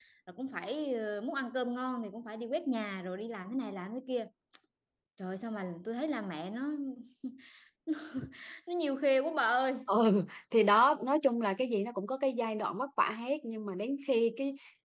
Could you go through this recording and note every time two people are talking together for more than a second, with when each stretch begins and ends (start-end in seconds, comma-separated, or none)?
none